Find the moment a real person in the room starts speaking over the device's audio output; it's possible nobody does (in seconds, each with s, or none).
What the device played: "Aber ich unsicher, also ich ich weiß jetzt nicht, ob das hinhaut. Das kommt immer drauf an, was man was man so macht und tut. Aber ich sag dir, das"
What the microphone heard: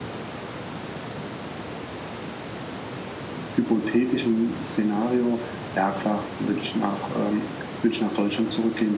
3.5 s